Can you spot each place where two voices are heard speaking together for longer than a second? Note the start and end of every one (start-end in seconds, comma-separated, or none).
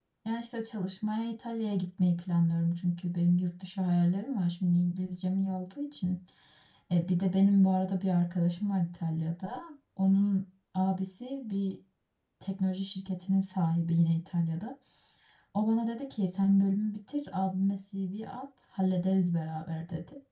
none